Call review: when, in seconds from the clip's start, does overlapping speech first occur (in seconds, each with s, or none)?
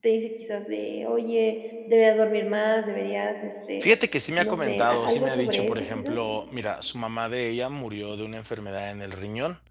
4.4 s